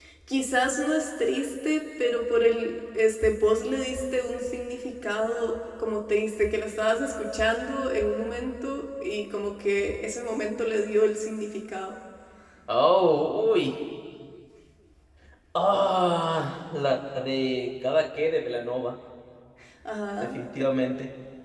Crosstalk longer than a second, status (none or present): none